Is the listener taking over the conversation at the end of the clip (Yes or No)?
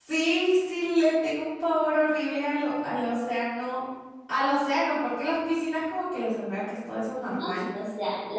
Yes